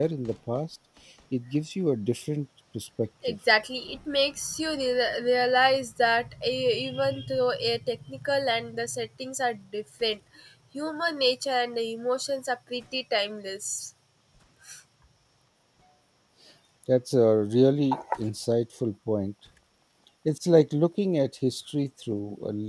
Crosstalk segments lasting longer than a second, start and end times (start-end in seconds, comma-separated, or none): none